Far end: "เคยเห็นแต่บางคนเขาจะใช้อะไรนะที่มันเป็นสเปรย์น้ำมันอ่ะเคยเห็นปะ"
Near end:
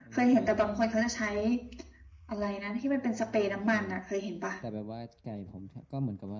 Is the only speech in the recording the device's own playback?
No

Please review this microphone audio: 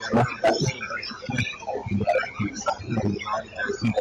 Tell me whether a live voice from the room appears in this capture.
No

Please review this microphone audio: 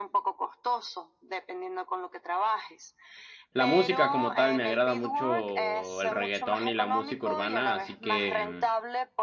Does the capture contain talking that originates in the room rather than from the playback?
Yes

